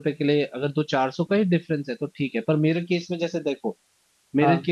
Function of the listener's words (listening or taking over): listening